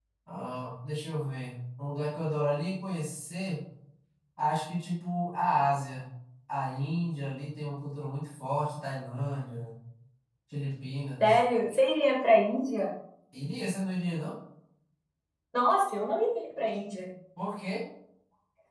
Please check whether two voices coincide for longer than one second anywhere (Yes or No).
No